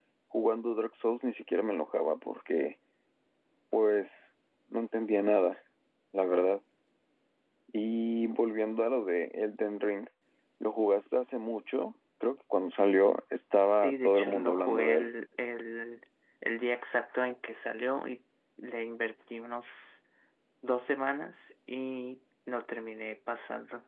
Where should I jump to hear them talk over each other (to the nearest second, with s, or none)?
14 s